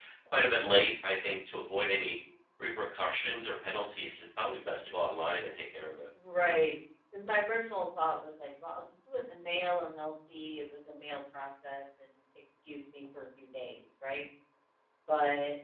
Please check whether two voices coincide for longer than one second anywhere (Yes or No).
No